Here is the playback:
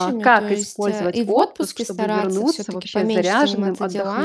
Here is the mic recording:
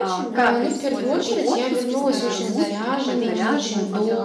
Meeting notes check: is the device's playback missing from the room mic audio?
No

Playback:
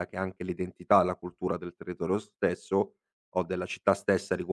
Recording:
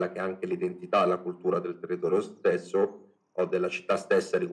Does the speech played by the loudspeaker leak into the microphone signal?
Yes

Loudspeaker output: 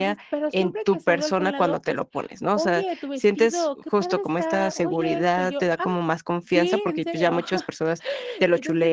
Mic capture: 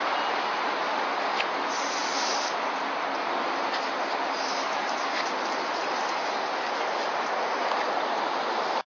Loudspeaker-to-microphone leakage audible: No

